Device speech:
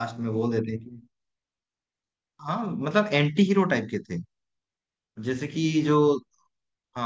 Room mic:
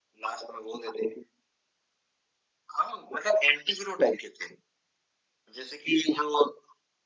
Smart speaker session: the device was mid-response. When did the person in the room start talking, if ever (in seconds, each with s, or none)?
none